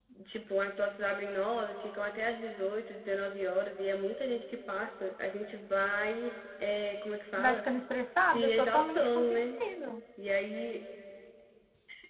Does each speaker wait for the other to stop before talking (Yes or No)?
No